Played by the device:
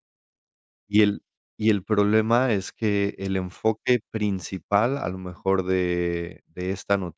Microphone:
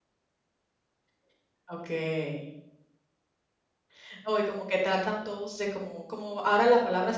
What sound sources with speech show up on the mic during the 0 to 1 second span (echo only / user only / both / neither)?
neither